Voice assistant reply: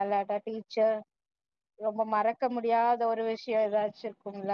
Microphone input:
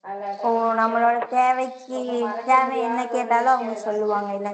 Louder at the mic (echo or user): user